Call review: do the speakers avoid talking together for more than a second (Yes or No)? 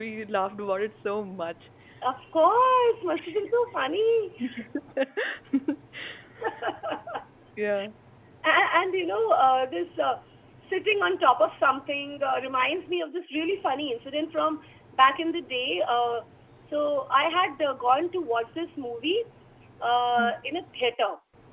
Yes